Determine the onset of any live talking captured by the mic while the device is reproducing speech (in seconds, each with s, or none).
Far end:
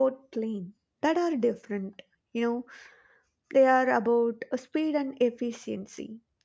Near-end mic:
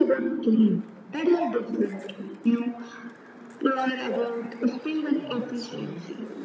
5.1 s